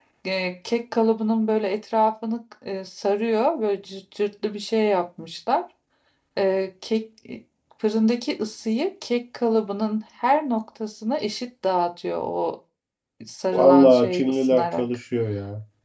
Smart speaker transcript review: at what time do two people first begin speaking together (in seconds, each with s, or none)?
13.5 s